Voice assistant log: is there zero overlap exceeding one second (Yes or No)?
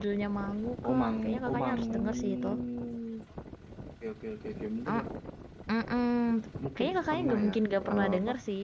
No